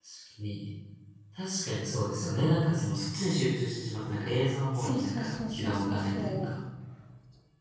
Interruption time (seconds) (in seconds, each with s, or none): 4.8 s